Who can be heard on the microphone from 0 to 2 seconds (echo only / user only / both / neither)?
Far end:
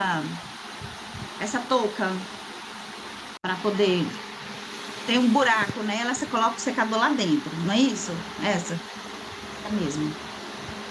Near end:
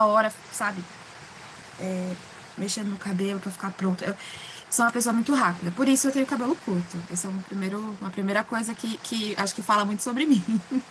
user only